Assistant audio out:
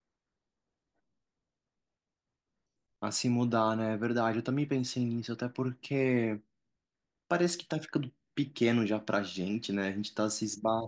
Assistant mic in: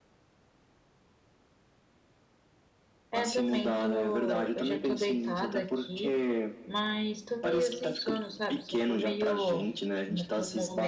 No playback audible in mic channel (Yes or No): No